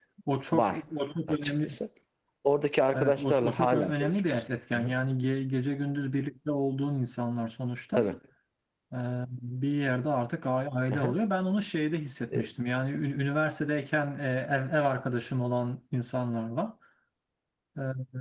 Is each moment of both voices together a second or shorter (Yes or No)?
No